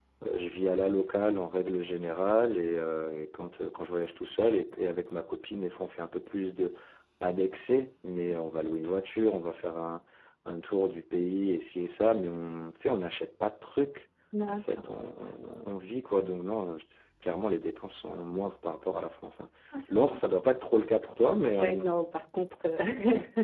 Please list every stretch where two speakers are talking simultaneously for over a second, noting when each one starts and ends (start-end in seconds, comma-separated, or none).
none